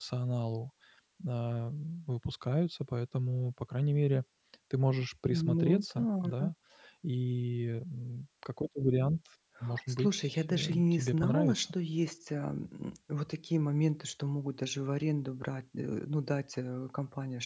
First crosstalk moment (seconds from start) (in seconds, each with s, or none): 5.3 s